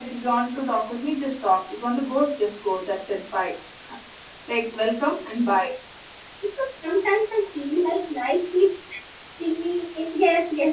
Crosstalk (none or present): none